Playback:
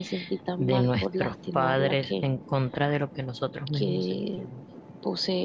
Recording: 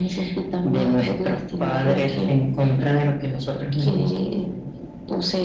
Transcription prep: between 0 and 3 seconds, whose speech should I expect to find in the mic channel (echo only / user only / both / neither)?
echo only